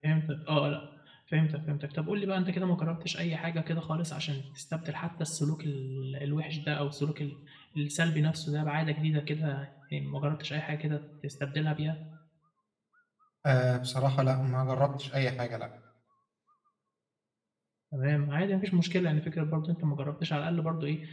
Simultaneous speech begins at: none

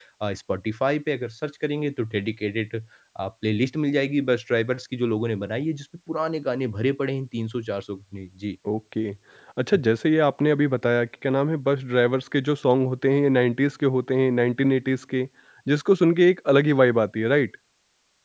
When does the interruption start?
none

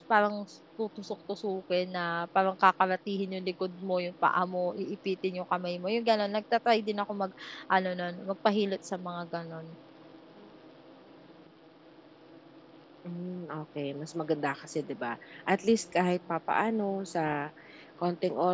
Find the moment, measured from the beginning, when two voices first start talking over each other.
none

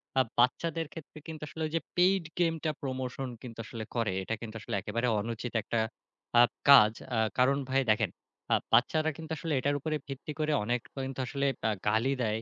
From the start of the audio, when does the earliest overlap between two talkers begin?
none

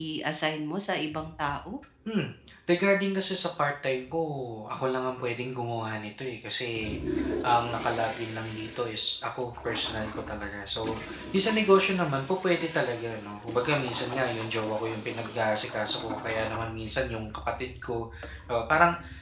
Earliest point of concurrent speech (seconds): none

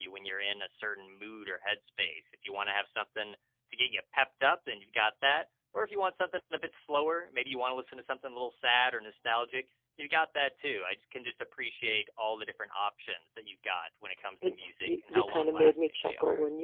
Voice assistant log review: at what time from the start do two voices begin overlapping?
14.4 s

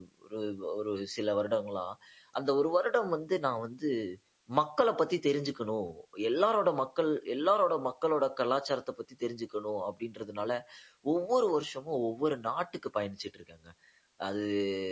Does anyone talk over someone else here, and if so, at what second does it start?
none

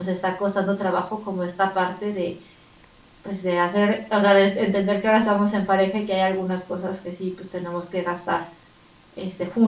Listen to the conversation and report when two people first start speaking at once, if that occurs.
none

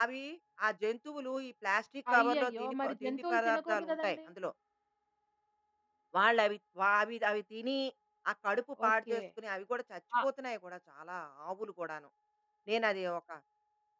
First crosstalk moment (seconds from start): 2.1 s

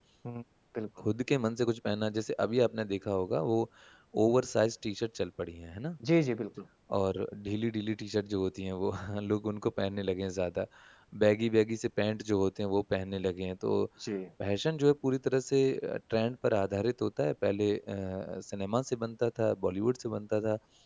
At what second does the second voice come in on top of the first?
none

